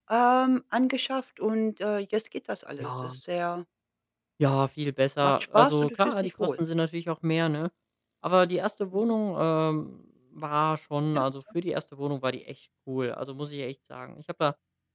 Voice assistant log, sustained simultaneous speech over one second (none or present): present